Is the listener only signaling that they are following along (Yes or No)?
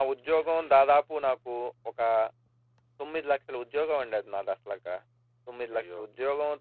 Yes